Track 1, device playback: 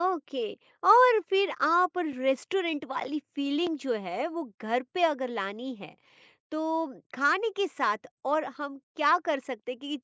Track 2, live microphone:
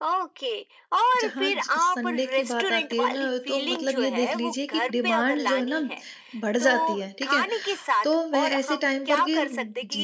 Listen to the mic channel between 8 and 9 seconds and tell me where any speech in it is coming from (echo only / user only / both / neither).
both